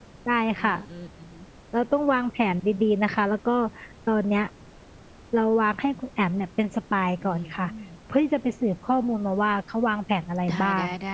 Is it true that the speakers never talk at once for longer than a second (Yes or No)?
Yes